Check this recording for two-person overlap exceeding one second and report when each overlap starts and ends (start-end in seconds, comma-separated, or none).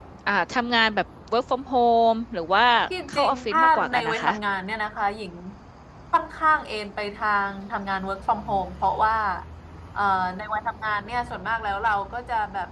3.1-4.3